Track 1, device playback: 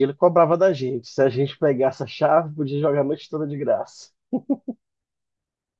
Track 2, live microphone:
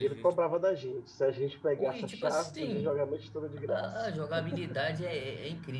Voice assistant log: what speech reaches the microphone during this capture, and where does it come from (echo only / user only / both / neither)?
both